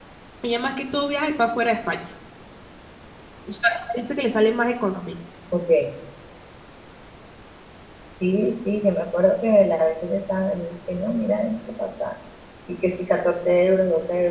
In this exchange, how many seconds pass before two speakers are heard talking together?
none

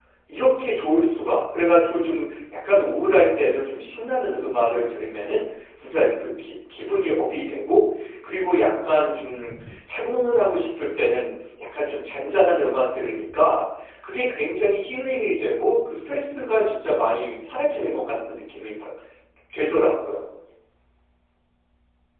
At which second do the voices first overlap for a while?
none

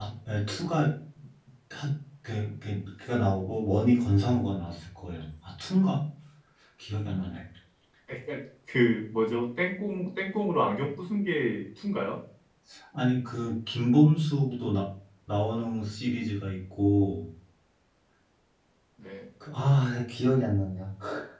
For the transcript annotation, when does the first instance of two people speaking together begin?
none

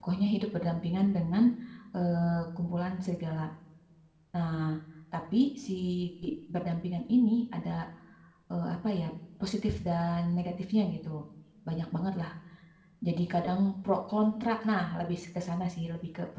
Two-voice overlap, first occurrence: none

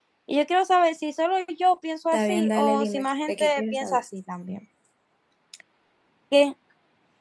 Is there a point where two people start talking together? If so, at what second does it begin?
2.1 s

